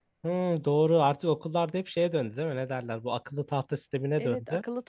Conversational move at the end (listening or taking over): taking over